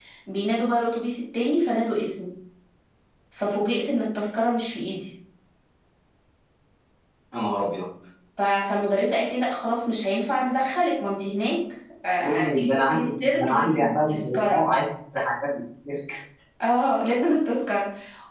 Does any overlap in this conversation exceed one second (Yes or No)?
Yes